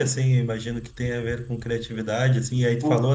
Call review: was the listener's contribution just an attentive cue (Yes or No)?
Yes